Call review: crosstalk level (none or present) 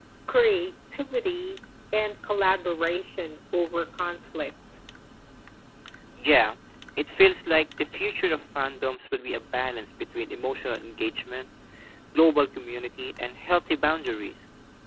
none